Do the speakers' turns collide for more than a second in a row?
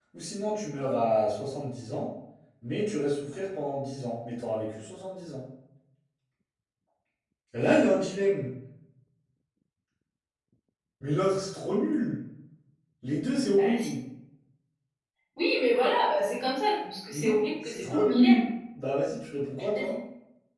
Yes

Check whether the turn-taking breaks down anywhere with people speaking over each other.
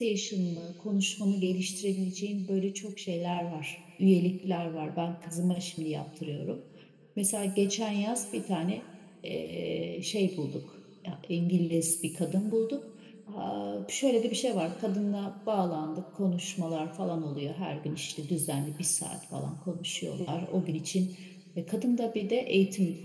No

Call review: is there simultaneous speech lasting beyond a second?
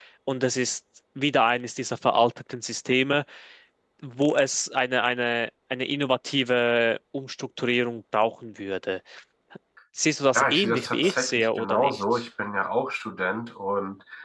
Yes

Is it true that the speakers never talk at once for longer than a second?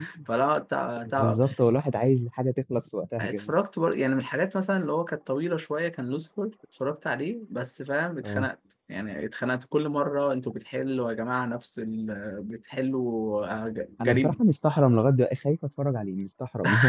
Yes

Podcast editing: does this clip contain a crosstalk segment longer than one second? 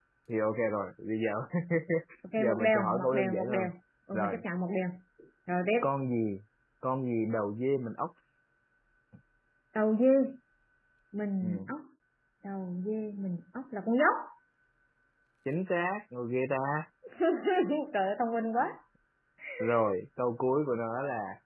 Yes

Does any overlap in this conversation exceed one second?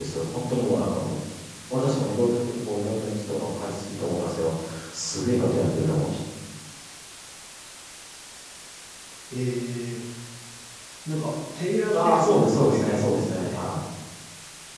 Yes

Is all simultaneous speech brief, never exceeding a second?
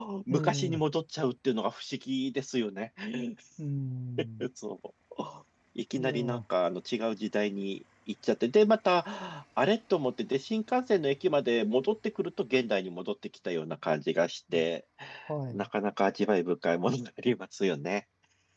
Yes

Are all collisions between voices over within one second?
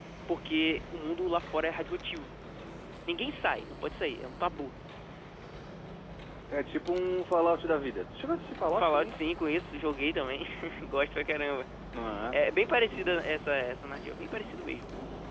Yes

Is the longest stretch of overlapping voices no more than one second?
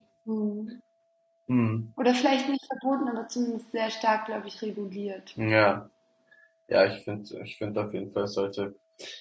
Yes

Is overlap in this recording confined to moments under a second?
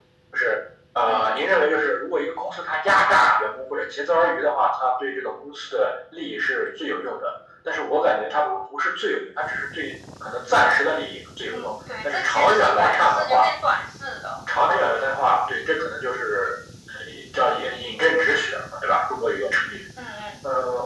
No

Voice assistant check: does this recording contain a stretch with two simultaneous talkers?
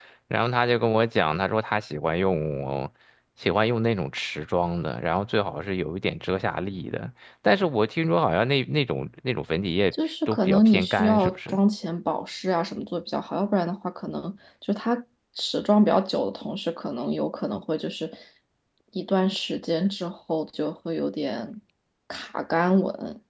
Yes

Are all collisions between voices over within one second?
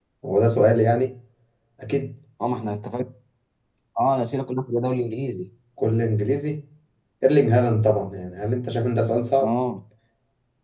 Yes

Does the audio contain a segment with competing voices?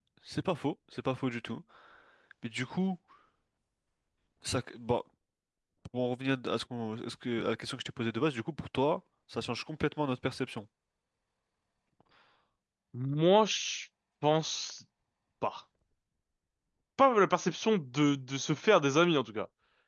No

